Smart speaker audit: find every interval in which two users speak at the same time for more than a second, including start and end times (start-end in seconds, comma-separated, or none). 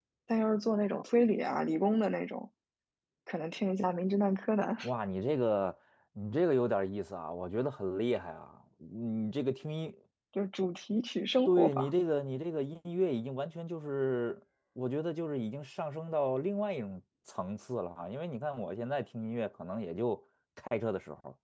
none